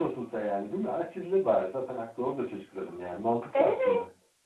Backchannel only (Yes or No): No